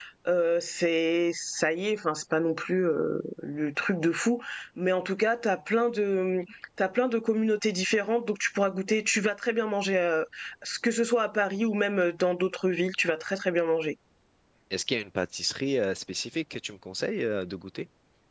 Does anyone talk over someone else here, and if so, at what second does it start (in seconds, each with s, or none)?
none